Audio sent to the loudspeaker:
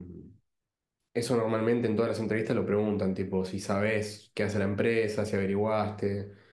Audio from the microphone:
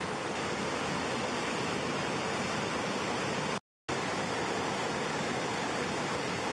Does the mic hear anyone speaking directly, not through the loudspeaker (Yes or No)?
No